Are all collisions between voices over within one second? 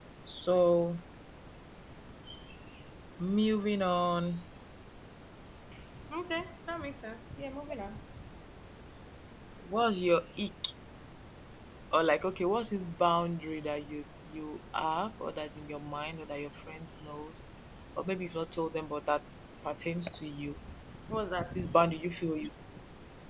Yes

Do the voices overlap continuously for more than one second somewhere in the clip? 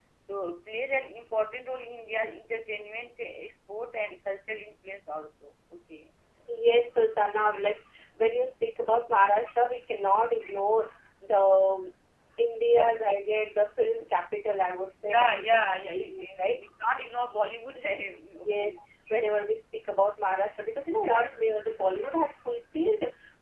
Yes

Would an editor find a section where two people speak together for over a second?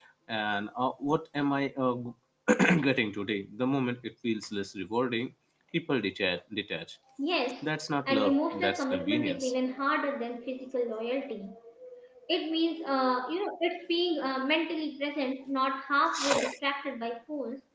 Yes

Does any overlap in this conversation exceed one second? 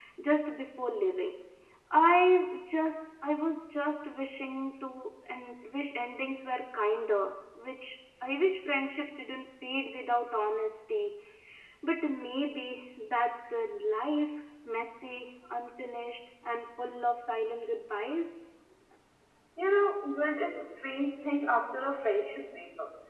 No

